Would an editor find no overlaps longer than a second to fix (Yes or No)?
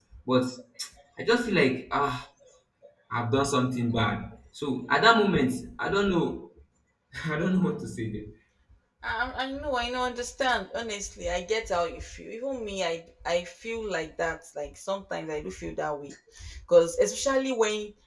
Yes